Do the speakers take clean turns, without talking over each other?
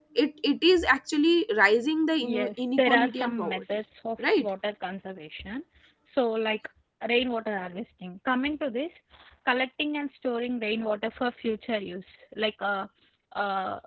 No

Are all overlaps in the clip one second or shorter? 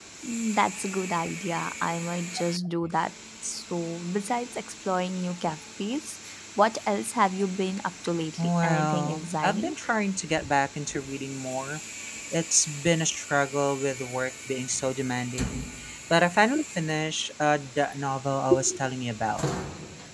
No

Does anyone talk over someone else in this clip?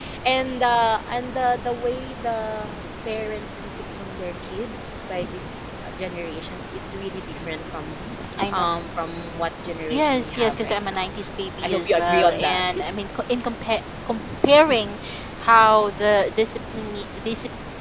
Yes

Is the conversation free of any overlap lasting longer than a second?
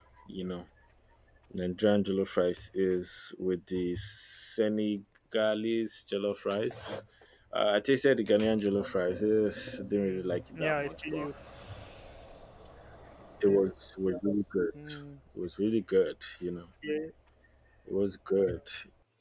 No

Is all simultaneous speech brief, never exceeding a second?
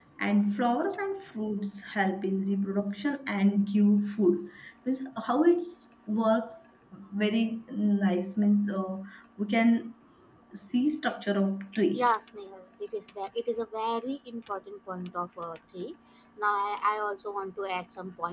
Yes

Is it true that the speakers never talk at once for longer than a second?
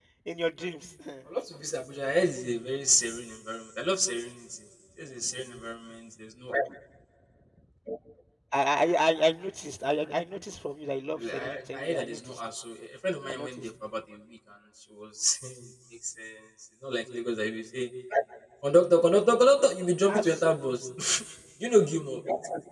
No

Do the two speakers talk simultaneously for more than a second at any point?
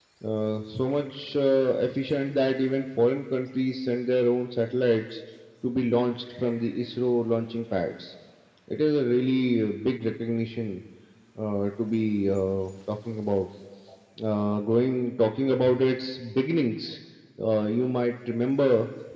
No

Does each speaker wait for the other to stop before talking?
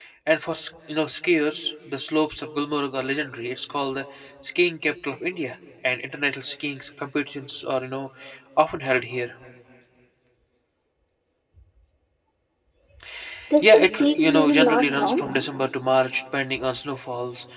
No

